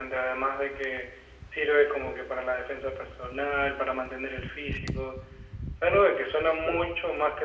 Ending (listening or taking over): listening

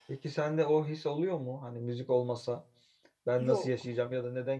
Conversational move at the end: listening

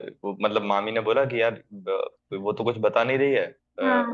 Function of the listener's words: listening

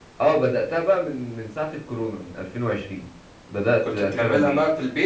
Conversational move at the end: taking over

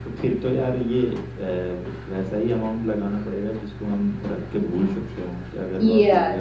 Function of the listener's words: taking over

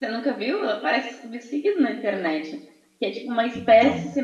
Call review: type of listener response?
listening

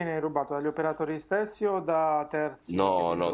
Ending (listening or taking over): taking over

